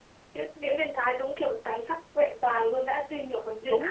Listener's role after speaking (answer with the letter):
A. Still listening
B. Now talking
B